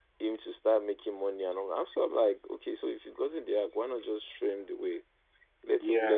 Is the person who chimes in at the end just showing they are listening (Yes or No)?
Yes